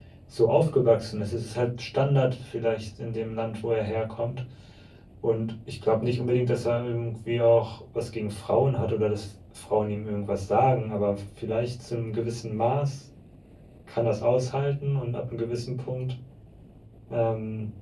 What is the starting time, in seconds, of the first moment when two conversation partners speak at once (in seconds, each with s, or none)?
none